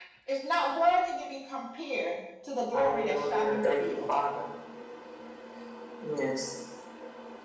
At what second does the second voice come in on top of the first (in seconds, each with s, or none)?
2.7 s